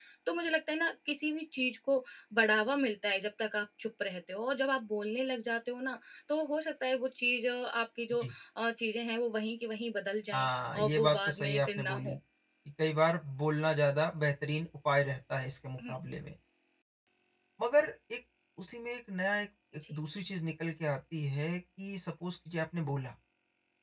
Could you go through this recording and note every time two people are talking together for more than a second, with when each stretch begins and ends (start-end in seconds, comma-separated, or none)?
10.3-12.2